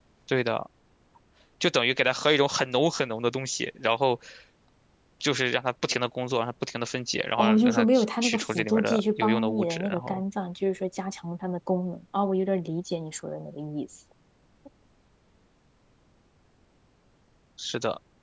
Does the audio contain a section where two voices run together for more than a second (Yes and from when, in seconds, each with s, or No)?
Yes, from 7.4 s